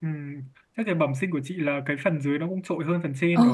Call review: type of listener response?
taking over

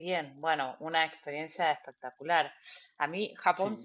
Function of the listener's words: listening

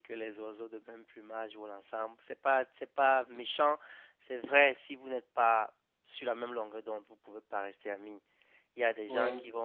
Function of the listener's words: listening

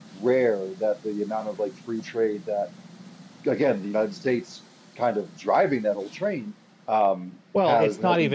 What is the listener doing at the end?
taking over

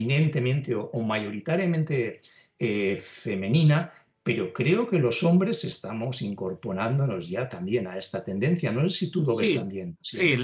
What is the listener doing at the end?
taking over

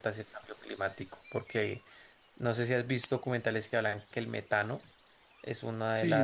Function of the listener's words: taking over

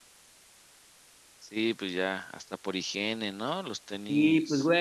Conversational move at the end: taking over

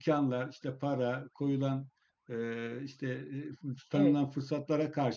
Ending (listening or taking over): listening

